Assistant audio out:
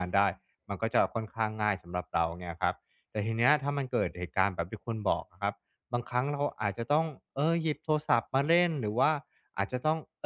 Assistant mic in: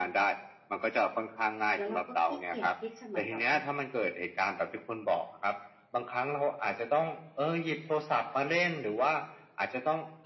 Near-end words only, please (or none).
แล้วเราก็ขี้เกียจที่จะเหมือนแบบว่า